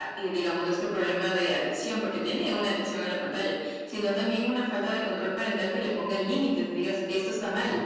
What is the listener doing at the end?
listening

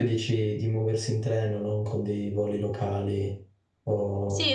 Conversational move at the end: taking over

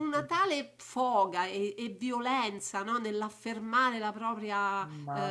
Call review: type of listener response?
taking over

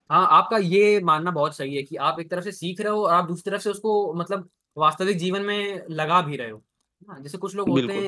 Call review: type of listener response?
listening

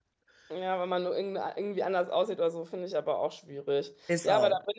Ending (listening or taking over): listening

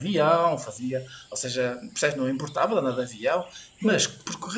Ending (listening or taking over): listening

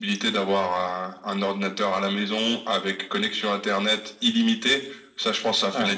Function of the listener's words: listening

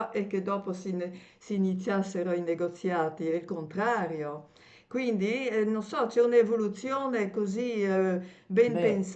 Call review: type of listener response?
listening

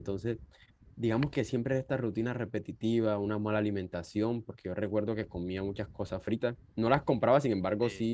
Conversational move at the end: listening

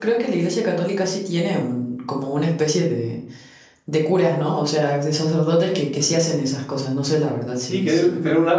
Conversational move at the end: taking over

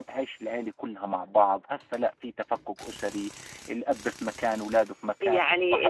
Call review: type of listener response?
taking over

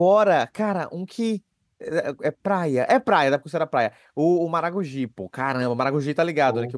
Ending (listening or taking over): listening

